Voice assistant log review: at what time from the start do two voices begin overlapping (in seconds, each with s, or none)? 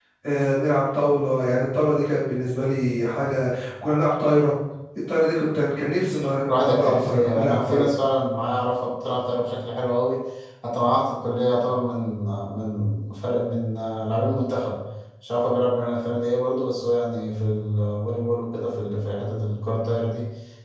6.5 s